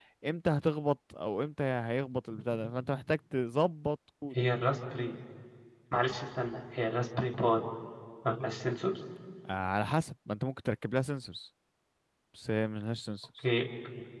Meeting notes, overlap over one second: none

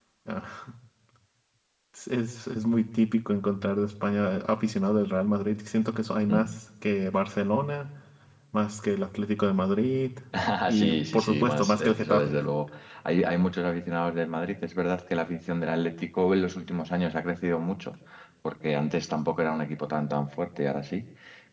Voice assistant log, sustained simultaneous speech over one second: present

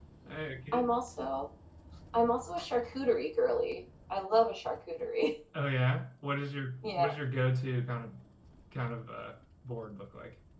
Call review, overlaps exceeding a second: none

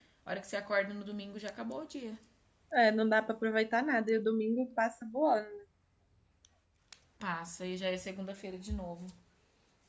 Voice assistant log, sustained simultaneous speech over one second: none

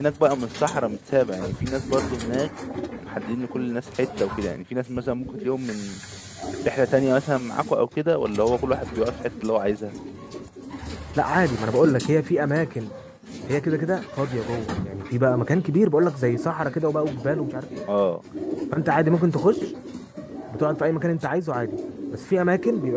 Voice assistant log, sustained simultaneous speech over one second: none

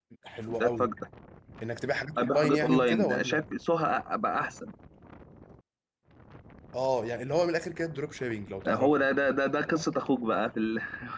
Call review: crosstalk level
present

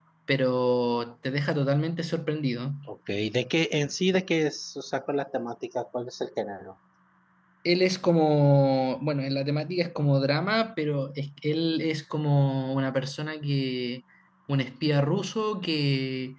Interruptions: none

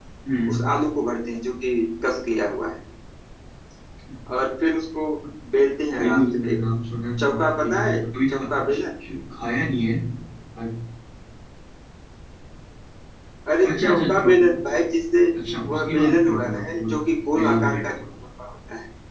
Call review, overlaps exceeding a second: present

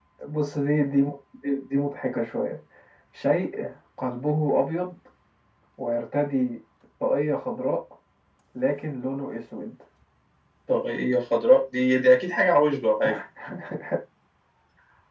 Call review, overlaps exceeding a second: none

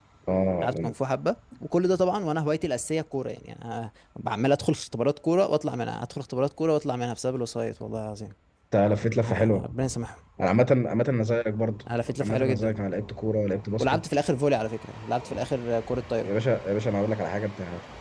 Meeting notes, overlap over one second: none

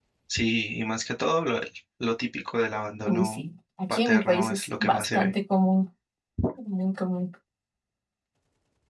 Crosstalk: present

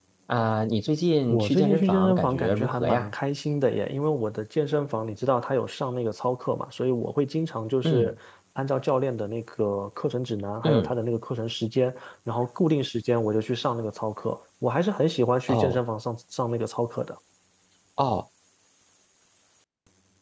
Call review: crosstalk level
present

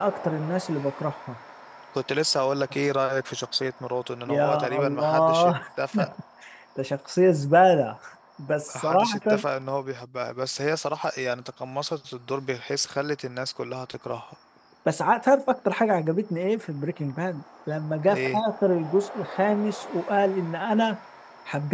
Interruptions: present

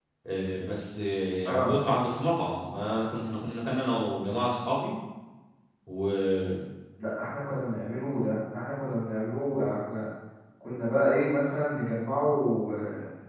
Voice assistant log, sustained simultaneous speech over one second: none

